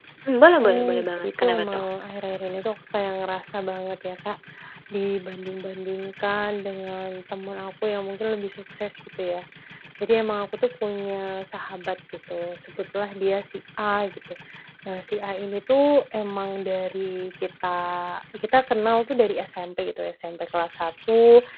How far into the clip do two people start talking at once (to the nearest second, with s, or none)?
1 s